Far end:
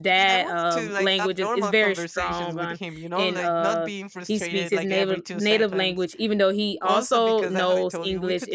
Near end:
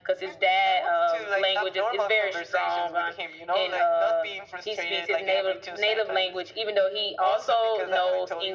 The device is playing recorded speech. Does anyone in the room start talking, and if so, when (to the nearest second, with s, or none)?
none